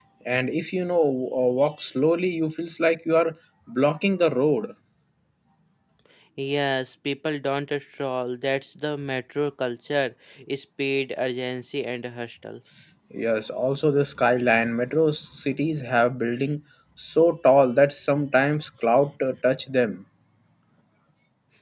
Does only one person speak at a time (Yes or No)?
Yes